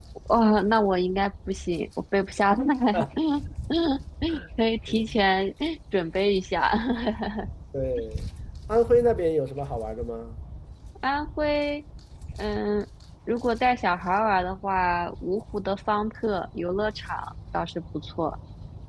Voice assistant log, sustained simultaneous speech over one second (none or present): none